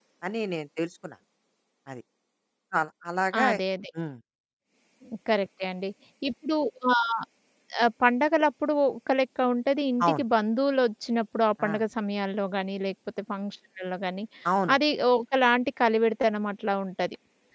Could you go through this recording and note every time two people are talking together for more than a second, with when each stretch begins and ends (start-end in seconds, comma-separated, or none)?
none